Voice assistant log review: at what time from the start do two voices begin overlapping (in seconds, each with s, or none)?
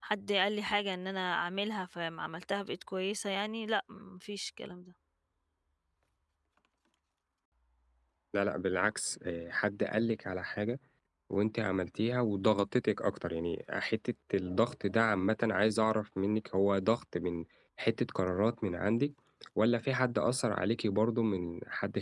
none